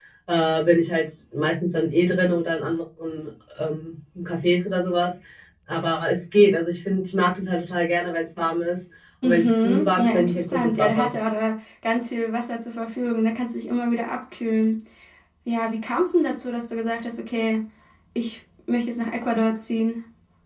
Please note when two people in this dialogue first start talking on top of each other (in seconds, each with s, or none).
9.2 s